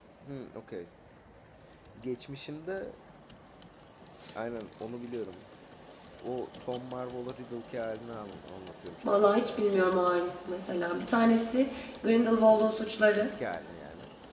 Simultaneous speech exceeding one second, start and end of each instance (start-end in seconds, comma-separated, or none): 9.1-10.4